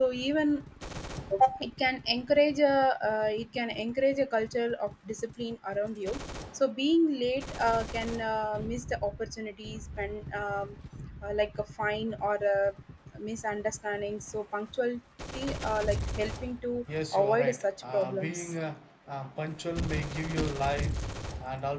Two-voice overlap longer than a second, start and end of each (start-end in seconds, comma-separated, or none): 17.1-18.5